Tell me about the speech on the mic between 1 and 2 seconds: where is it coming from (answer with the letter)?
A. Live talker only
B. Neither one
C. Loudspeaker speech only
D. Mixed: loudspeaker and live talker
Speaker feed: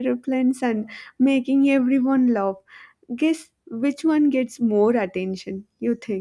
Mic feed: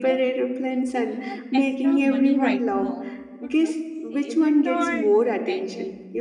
D